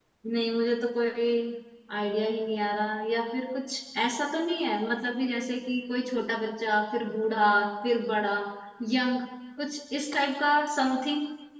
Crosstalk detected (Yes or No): No